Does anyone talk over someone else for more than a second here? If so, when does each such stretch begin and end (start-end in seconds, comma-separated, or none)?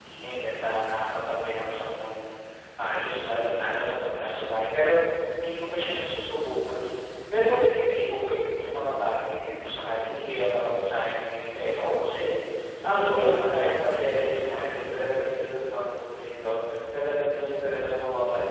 12.8-15.3